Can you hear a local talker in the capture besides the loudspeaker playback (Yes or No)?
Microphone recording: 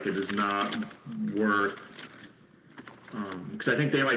No